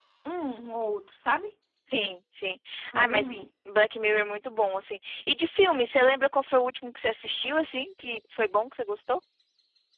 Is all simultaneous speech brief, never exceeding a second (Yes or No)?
Yes